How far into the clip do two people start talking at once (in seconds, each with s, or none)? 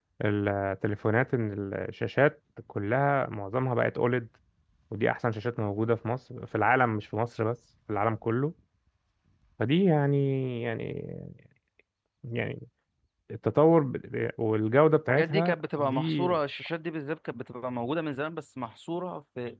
15.1 s